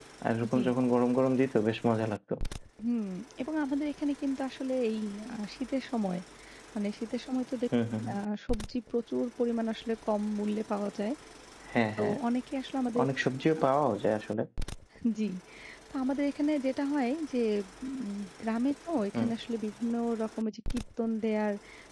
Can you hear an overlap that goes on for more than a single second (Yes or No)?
No